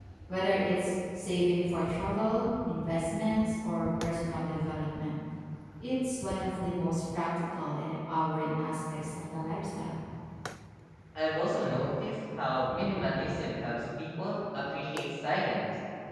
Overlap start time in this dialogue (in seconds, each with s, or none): none